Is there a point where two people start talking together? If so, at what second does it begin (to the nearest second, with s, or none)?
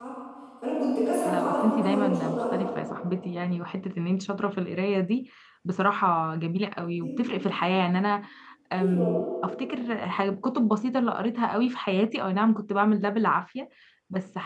1 s